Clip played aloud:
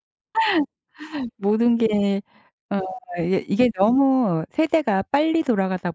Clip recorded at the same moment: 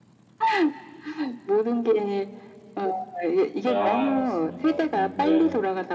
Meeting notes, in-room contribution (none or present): present